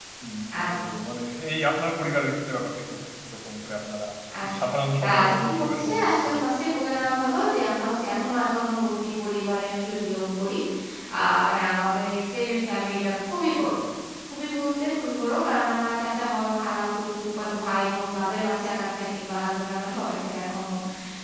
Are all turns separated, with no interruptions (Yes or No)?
No